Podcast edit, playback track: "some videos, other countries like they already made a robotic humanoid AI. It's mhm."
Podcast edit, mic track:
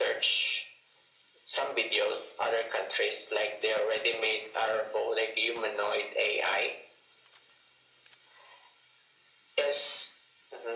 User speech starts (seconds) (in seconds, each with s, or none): none